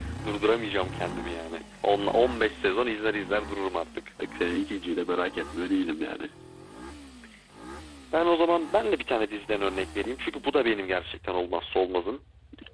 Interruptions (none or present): none